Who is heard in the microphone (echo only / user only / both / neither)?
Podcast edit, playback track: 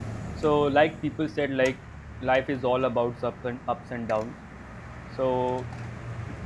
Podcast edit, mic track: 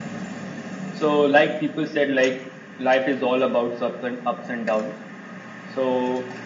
echo only